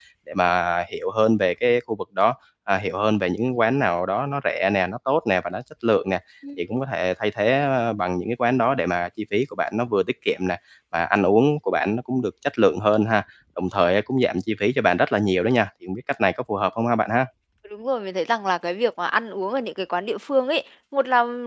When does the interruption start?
none

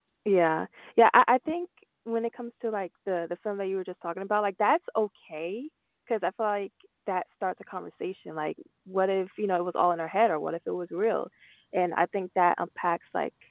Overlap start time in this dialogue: none

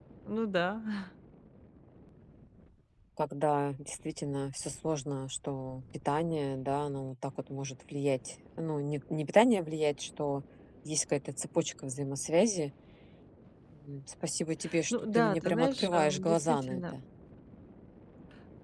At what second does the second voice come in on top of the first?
15 s

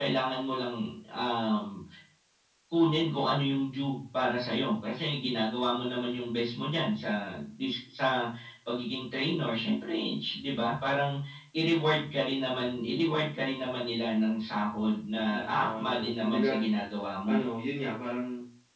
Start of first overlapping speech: 15 s

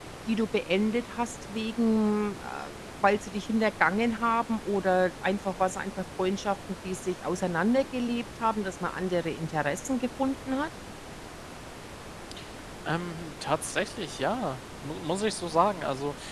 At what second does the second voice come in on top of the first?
none

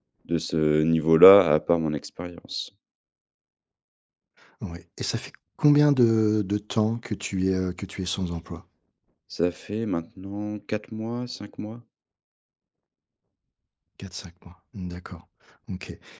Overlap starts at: none

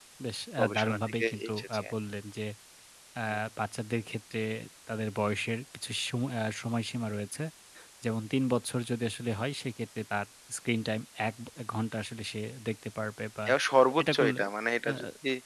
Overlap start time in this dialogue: 1 s

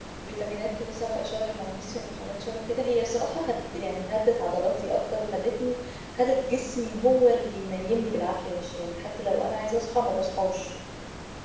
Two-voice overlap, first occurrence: none

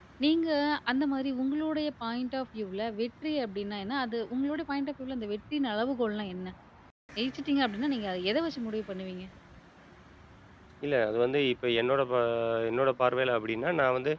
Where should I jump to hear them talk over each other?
none

